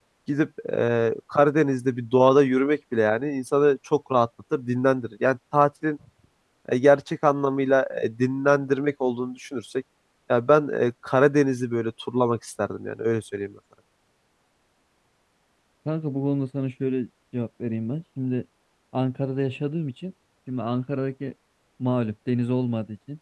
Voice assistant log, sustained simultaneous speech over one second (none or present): none